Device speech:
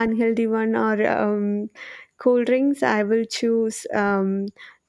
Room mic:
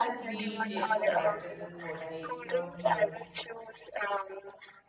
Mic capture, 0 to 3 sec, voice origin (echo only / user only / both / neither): both